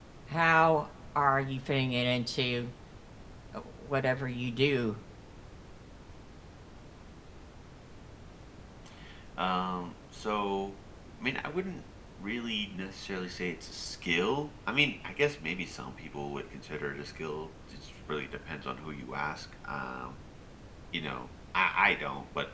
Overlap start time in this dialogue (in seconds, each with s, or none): none